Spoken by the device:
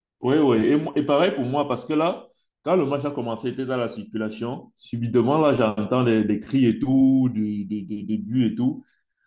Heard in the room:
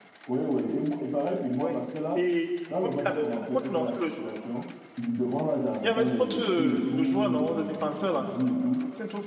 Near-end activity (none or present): present